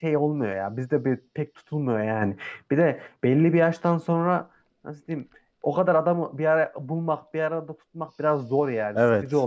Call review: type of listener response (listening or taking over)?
taking over